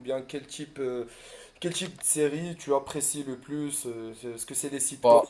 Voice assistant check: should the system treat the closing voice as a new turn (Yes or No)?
No